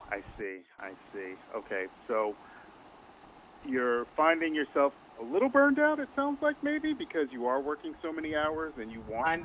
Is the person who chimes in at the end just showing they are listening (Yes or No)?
No